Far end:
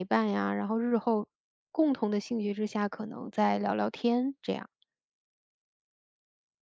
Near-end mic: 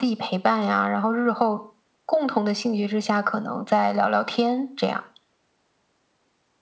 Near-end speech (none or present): none